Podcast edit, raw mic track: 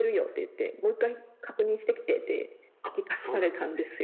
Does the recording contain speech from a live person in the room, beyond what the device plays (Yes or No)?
Yes